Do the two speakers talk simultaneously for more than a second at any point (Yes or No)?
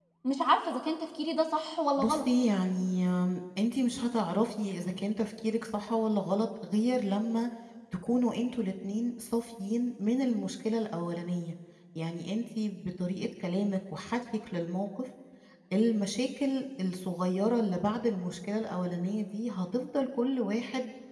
No